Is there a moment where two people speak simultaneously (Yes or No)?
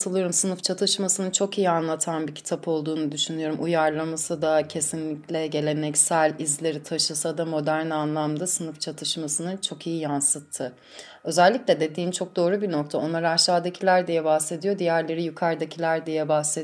No